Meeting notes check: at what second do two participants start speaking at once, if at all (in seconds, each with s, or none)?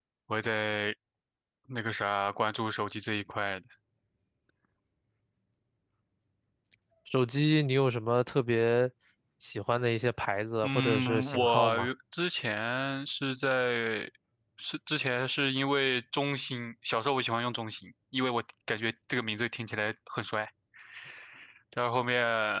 10.6 s